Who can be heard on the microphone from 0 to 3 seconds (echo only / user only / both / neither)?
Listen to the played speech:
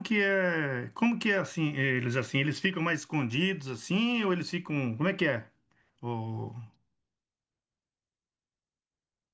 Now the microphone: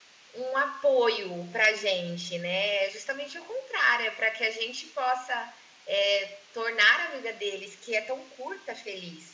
user only